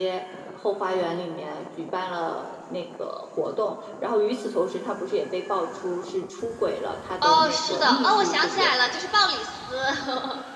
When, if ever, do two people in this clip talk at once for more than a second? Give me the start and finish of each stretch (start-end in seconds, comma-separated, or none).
7.2-8.7